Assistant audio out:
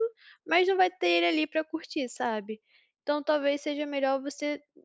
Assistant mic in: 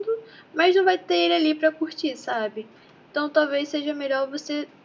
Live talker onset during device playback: none

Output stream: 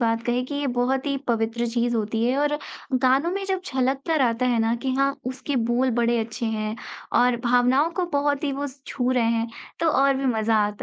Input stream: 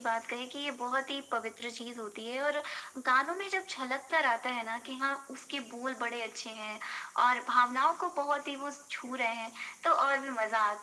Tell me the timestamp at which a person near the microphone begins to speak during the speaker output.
none

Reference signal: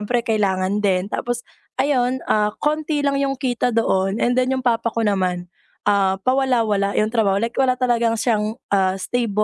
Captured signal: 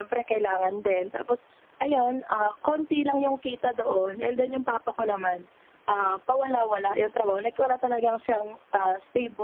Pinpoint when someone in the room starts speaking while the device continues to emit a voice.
none

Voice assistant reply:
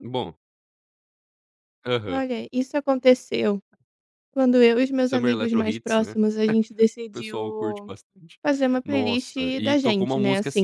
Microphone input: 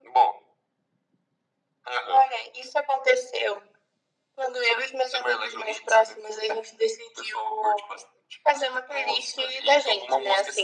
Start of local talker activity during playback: none

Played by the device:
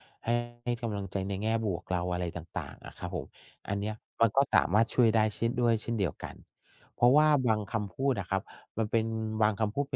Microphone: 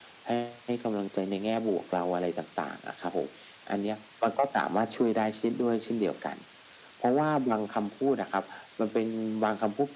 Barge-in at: none

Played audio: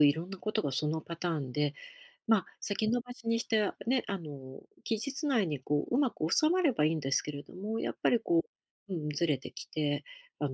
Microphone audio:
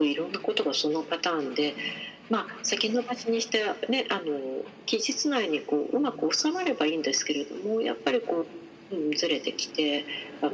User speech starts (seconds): none

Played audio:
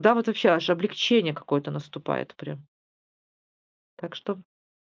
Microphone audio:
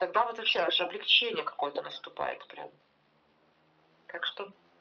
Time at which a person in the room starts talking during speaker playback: none

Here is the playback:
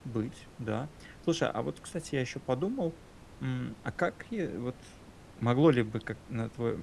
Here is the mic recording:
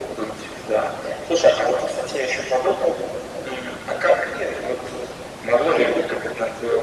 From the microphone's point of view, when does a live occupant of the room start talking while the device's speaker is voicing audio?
none

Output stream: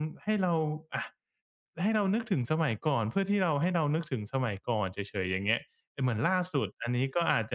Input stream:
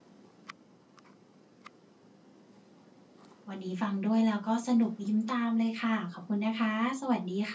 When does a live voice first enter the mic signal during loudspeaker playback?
3.5 s

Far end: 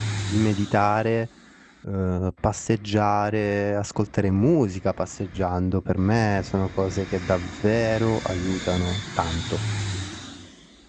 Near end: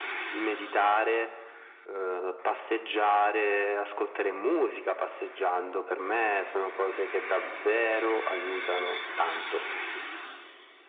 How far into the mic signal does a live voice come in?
none

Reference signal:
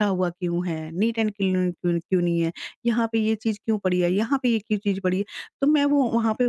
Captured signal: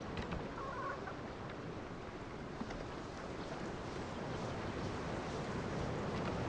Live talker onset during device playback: none

